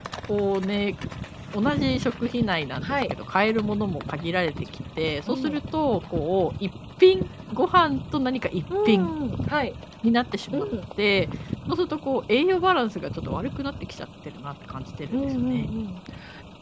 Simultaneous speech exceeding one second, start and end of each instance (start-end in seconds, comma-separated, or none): none